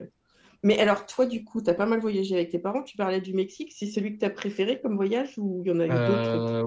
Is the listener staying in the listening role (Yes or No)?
No